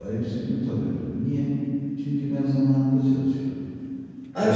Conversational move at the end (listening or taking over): taking over